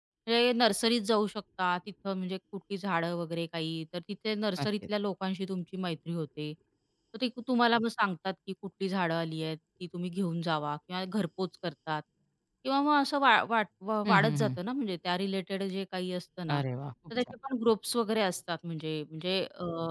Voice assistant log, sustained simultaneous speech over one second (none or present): none